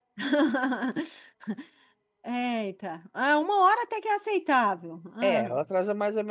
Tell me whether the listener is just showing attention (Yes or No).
No